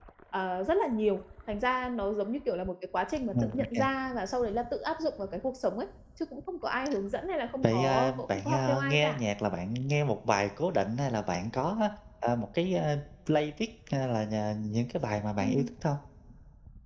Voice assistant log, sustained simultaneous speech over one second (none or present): present